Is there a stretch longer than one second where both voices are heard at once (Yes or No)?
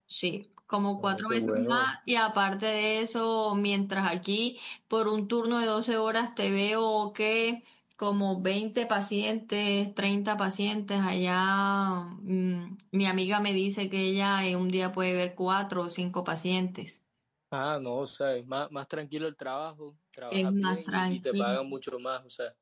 Yes